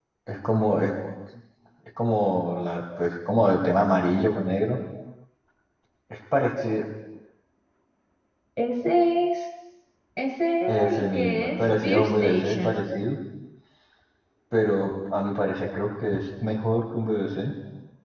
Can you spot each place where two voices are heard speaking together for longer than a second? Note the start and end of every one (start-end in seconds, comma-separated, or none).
10.7-12.8